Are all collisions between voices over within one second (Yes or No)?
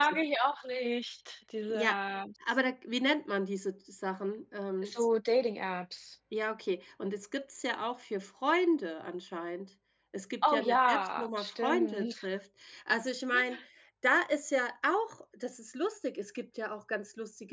No